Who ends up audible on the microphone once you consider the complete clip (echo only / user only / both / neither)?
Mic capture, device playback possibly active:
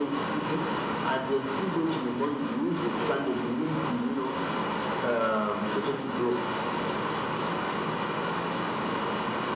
both